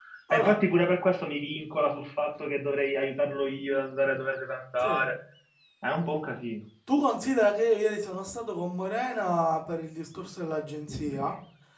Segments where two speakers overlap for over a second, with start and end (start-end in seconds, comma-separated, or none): none